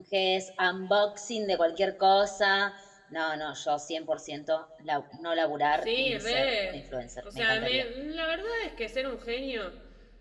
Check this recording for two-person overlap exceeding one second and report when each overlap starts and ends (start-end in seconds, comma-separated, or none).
5.7-7.8